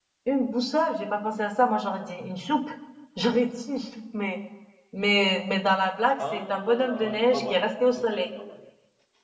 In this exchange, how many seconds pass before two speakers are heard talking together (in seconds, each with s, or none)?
6.2 s